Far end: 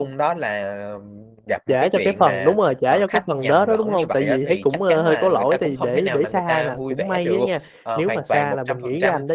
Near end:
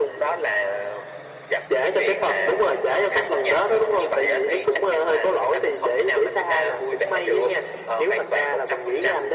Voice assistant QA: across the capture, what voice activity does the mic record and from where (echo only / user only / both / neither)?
echo only